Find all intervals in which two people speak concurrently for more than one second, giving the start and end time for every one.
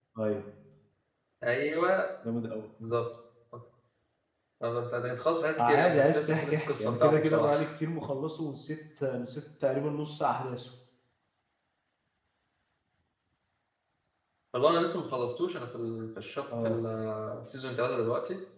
5.6-7.7

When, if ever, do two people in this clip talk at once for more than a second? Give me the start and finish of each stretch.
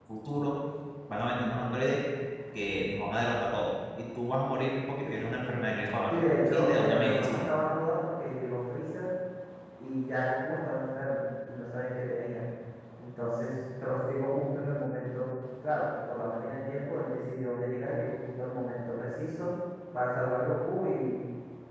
6.1-7.4

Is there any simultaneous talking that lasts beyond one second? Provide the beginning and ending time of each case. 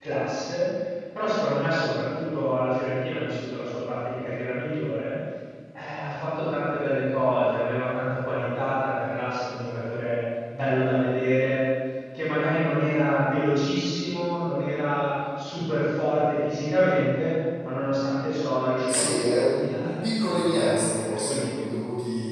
18.9-21.5

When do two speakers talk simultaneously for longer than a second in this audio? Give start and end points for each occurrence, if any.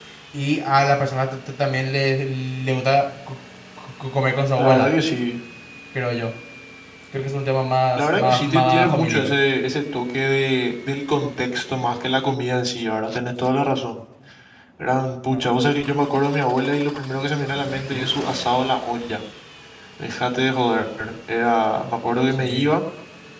8.0-9.3

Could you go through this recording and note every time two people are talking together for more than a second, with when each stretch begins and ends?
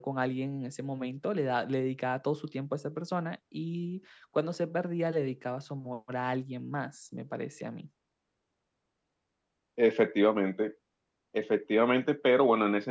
none

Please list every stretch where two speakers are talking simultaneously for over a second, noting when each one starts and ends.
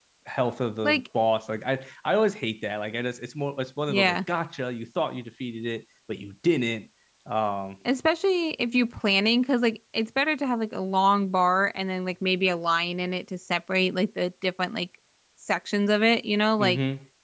none

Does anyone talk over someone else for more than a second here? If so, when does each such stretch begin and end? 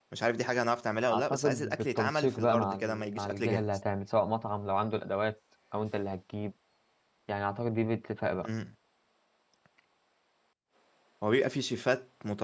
1.1-3.6

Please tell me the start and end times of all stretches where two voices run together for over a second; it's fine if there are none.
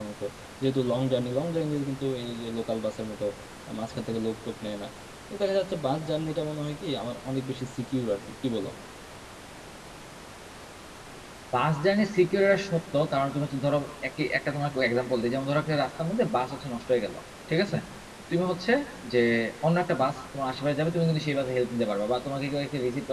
none

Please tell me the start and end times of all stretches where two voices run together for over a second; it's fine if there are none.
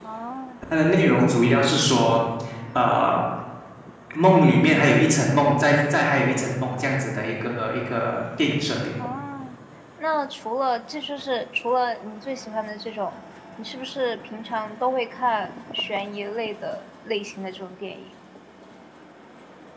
none

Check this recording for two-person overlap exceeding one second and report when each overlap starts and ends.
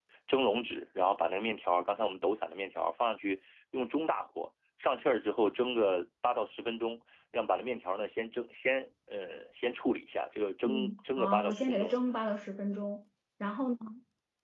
10.6-12.0

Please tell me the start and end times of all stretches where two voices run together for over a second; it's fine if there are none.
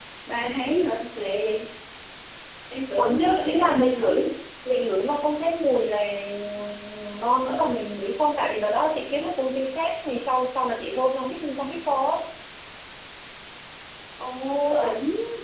3.0-4.2

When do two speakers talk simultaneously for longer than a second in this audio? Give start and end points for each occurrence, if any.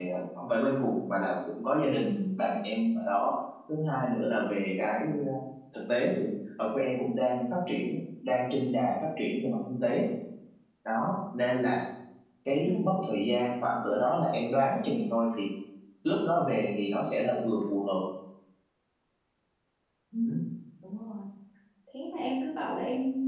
none

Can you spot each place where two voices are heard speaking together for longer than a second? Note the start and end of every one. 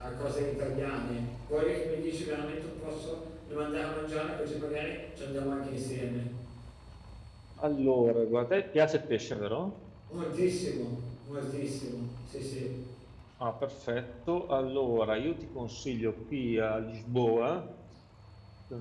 none

